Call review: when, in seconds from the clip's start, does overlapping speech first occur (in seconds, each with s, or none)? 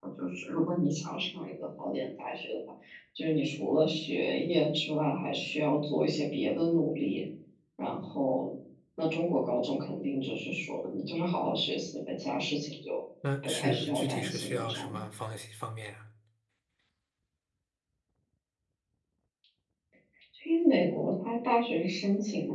13.4 s